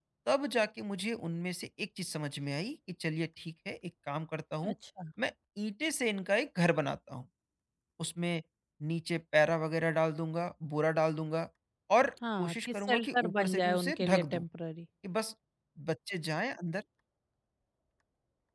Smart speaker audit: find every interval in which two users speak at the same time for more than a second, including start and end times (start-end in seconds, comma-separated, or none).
12.4-14.4